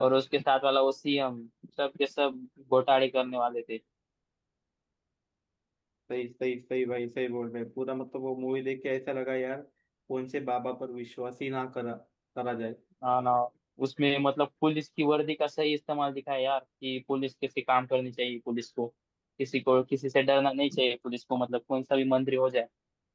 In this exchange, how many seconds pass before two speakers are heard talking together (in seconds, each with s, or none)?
none